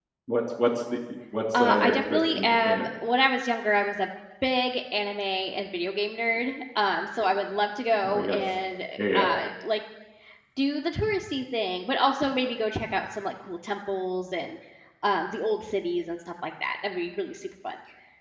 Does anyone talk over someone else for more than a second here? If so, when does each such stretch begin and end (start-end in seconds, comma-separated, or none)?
1.6-2.9